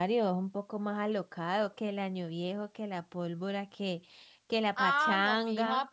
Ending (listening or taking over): taking over